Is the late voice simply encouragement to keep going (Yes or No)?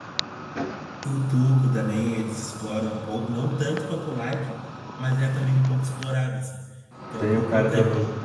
No